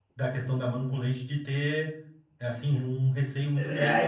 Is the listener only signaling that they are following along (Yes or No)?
No